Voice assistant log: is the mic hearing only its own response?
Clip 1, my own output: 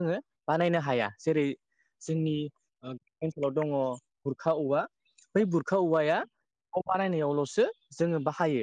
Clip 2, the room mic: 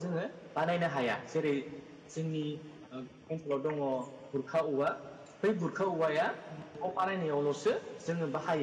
No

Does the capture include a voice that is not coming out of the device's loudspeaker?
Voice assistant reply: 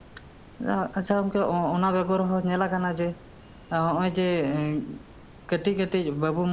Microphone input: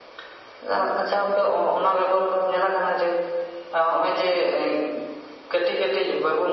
No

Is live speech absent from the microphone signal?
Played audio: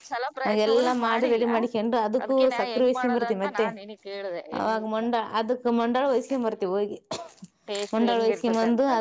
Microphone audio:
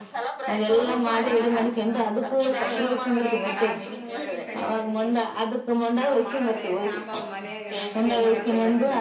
No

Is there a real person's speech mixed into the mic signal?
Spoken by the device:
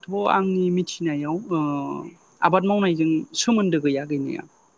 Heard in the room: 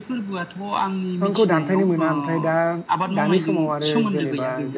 Yes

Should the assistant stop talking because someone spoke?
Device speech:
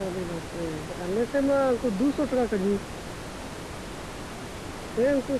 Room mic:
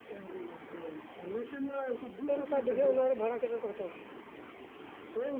Yes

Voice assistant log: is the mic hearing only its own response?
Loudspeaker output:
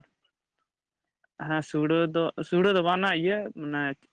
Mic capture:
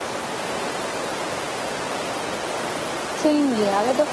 No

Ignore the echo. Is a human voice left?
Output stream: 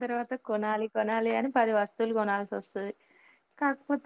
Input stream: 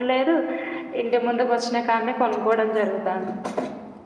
Yes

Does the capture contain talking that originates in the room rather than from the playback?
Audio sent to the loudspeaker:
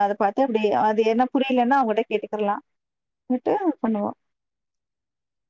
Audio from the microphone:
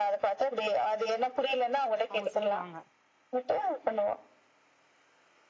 Yes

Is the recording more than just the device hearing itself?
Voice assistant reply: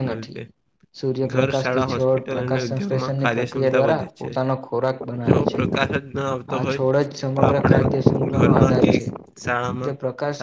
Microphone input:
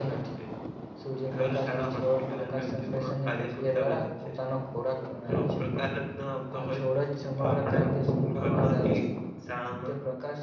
No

